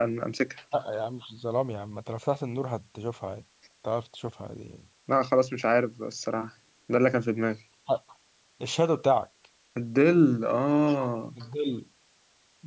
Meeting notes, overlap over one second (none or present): none